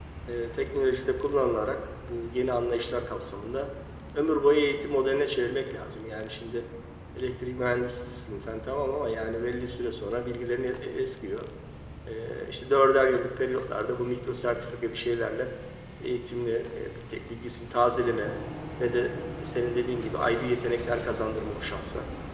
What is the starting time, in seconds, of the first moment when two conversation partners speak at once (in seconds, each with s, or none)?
none